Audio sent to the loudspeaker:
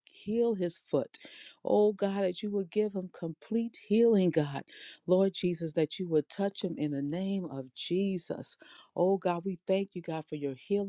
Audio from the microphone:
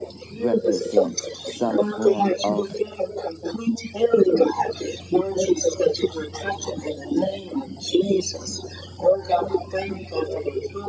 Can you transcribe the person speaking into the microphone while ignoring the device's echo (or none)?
represents some form of